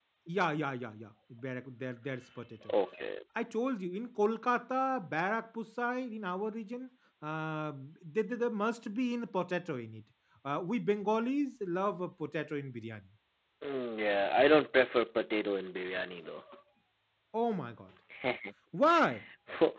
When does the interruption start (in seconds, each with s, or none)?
none